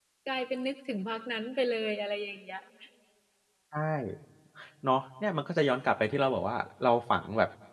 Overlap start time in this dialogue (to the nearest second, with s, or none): none